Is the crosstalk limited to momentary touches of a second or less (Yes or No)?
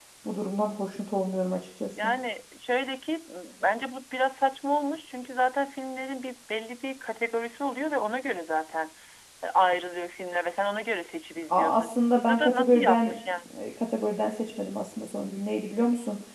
No